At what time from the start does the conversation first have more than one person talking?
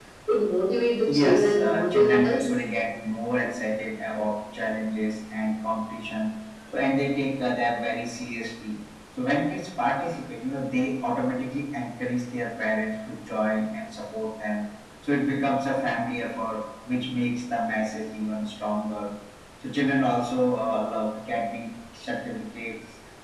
1.1 s

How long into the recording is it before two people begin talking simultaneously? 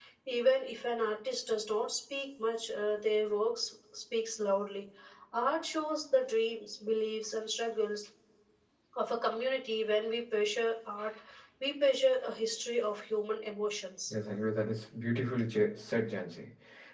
none

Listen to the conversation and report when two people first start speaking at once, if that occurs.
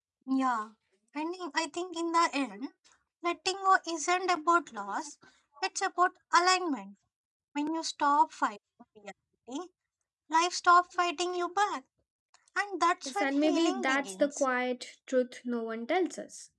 13.1 s

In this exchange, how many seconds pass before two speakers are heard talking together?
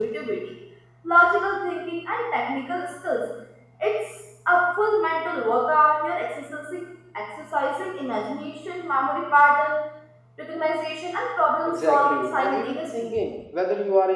11.7 s

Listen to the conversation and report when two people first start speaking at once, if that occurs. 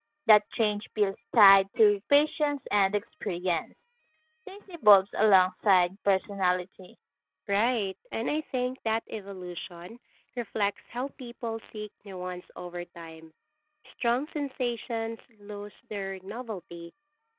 none

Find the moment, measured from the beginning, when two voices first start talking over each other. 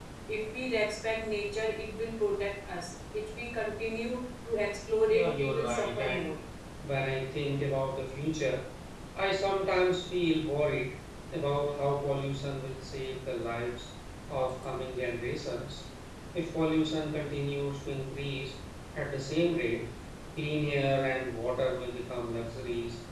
5.1 s

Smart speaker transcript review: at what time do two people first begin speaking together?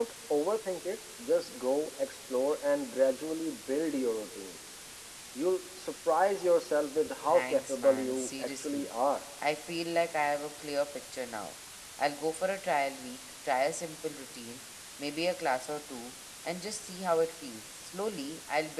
7.3 s

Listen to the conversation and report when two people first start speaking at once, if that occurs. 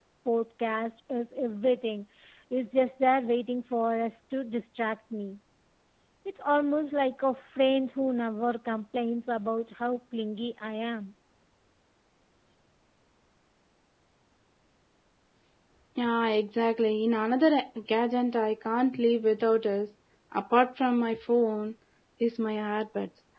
none

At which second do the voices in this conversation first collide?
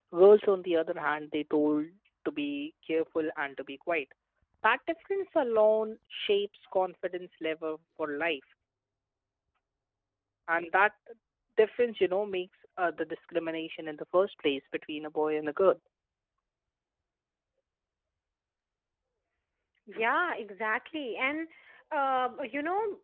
none

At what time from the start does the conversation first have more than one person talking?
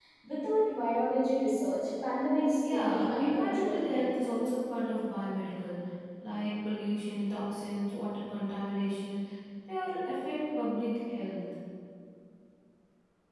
2.6 s

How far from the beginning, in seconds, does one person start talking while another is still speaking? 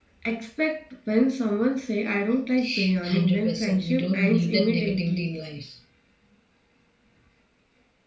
2.6 s

